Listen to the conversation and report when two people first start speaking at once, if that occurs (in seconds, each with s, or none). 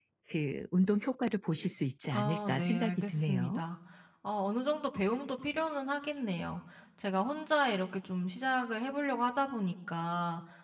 2.1 s